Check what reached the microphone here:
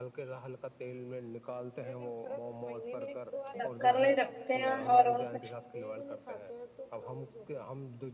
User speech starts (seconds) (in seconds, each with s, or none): 3.6 s